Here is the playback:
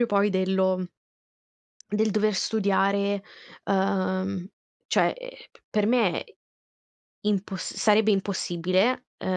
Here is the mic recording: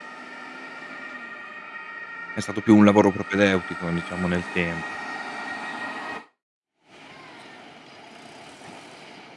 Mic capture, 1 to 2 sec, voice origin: neither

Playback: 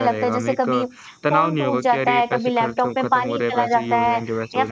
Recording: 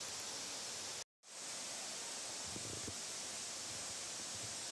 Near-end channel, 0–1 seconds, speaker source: neither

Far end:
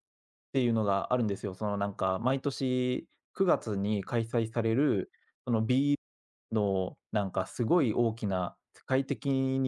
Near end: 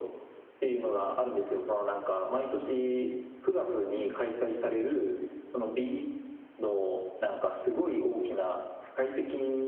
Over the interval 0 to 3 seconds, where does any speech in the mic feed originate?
echo only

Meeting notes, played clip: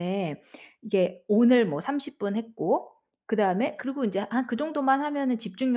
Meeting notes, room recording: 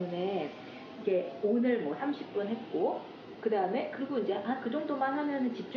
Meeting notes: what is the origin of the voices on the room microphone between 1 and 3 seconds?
echo only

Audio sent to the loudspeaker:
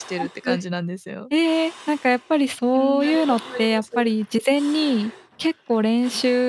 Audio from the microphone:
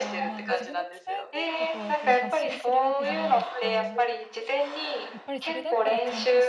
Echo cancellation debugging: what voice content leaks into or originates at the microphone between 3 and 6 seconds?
both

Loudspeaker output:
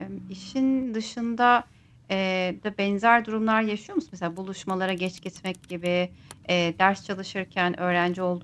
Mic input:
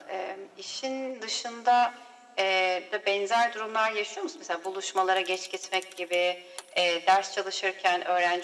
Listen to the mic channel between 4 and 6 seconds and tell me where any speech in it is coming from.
echo only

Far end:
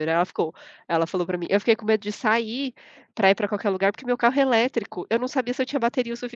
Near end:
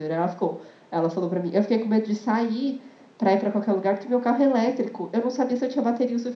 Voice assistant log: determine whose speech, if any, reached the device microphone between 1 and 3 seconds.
echo only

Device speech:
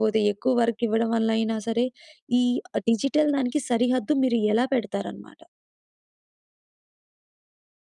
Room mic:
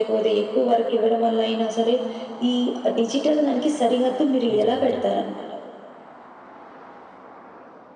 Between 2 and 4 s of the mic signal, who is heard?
echo only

